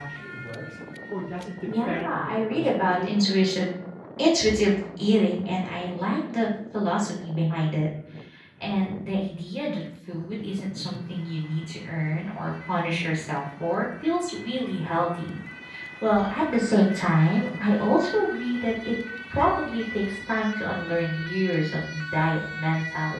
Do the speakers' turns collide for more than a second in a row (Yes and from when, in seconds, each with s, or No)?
Yes, from 1.8 s